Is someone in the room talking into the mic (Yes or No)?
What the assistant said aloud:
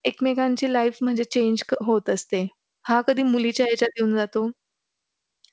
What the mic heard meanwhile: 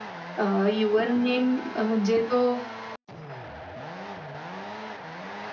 Yes